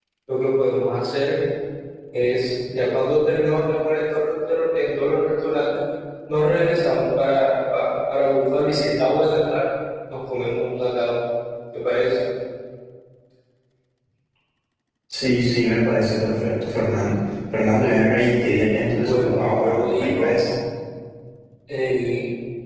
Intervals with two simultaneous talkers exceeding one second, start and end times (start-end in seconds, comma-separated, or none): 18.9-20.4